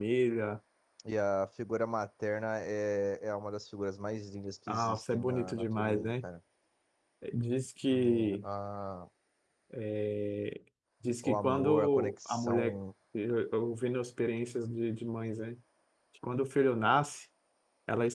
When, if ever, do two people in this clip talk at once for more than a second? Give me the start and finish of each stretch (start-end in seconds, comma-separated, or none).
4.7-6.2, 11.2-12.8